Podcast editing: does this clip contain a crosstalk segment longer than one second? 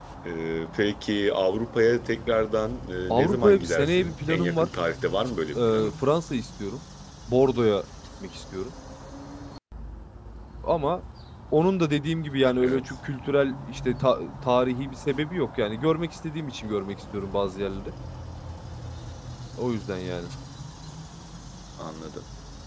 Yes, from 3.1 s

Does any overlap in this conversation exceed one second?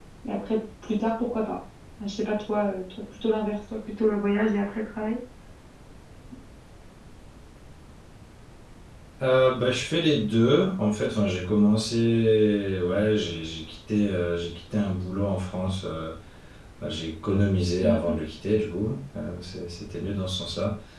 No

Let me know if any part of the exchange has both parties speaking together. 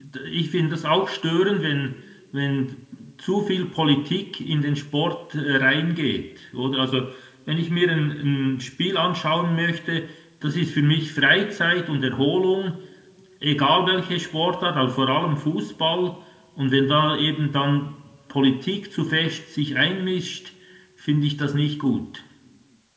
No

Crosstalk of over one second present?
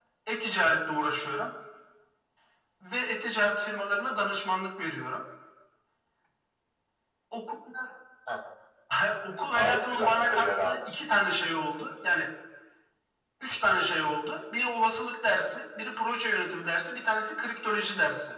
Yes, from 9.5 s

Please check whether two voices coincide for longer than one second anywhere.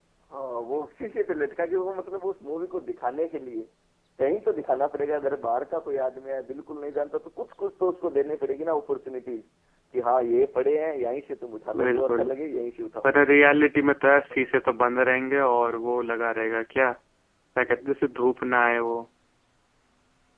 No

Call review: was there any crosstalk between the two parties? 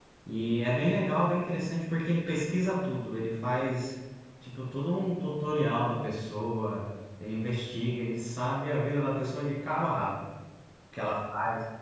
No

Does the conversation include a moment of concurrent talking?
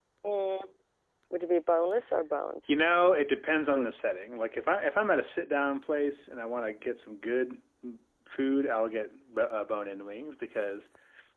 No

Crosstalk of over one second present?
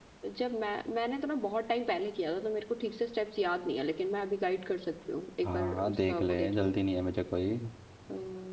Yes, from 5.4 s

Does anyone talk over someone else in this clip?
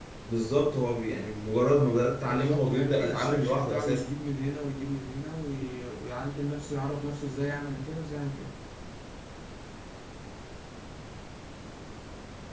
Yes, from 2.2 s

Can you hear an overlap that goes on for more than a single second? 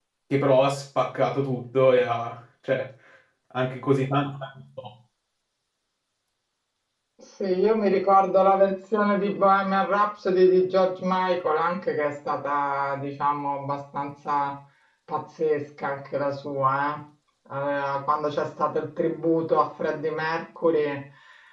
No

